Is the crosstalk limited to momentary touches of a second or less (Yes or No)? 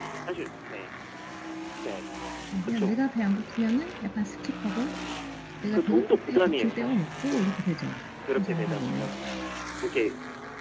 No